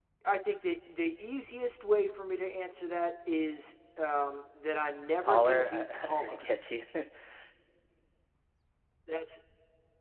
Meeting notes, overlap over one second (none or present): present